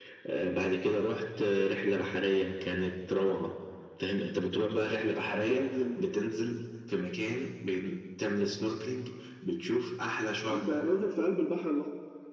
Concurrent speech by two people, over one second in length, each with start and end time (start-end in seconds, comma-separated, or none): none